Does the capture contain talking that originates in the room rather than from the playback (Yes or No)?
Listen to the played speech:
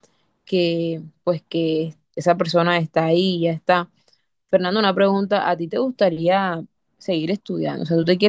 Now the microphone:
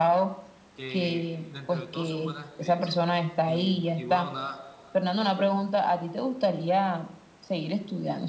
Yes